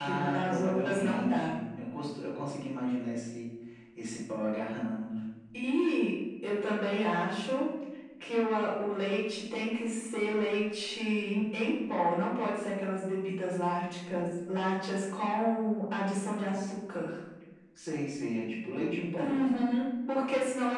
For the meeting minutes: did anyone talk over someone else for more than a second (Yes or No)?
Yes